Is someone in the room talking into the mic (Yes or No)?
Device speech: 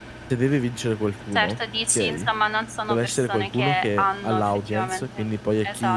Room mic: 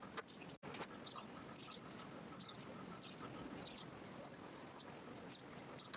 No